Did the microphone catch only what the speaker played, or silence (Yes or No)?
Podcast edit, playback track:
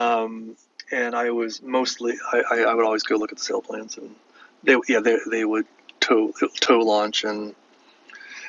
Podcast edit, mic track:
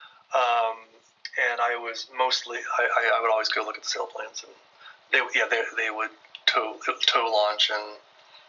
Yes